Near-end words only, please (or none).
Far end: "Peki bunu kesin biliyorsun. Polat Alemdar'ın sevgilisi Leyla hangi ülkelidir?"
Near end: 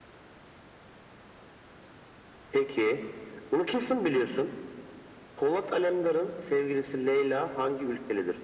none